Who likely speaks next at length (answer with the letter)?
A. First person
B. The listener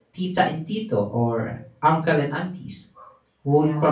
A